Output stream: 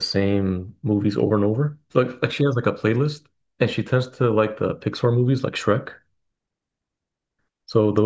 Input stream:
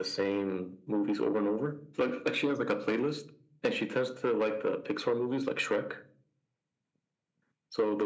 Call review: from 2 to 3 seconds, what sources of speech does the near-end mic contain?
echo only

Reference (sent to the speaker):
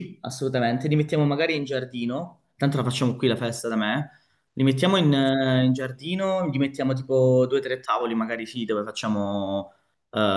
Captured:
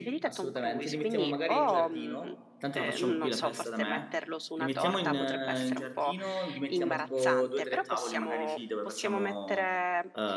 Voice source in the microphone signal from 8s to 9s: both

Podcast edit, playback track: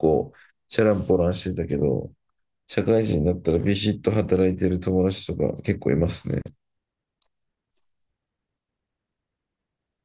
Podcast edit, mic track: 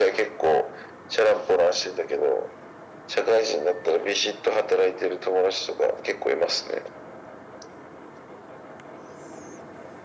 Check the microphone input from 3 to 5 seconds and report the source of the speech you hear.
echo only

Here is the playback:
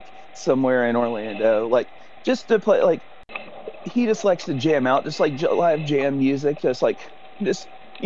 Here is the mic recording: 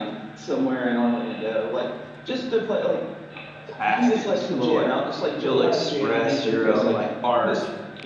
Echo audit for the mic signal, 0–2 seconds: echo only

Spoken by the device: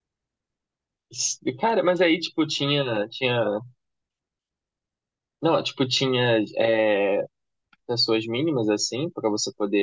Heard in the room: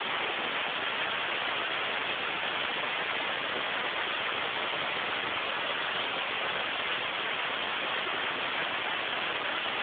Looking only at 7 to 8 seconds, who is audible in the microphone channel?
neither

